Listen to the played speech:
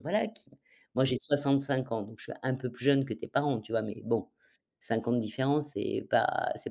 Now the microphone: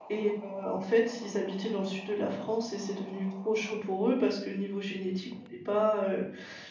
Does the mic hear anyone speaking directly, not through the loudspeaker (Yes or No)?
Yes